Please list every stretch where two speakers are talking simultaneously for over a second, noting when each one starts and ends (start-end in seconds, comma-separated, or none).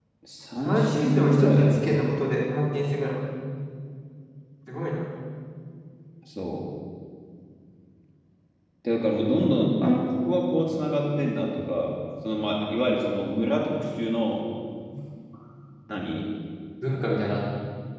0.6-2.1